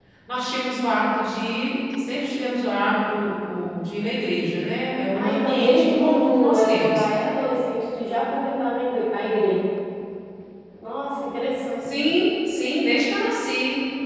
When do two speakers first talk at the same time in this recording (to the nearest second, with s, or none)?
5 s